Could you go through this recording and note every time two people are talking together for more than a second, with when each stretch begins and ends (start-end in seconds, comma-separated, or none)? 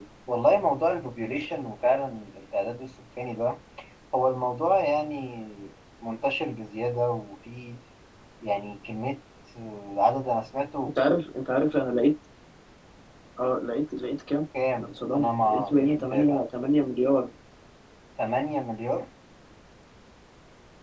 14.7-16.4